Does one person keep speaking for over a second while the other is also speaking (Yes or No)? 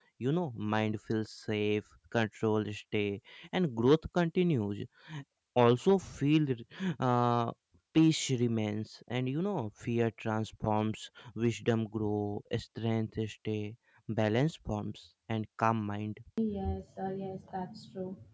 No